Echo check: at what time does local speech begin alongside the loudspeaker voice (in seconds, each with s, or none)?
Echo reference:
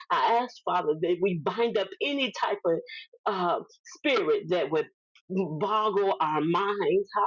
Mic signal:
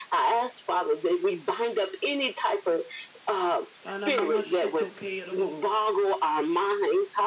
3.8 s